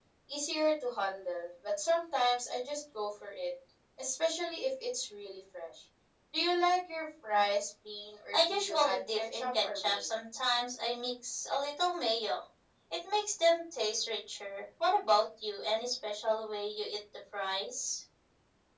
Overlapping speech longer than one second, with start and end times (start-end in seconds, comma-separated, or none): 8.3-10.2